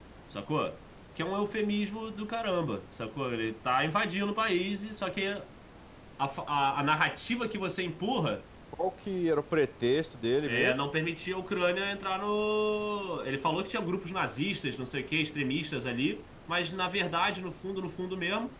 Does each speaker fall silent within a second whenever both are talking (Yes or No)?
Yes